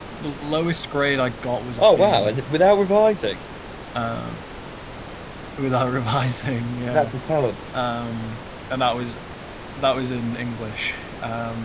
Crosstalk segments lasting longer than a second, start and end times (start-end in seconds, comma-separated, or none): none